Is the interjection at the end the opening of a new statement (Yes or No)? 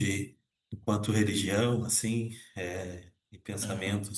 No